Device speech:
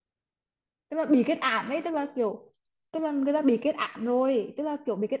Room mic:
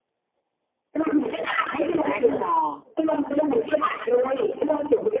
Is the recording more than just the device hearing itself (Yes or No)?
Yes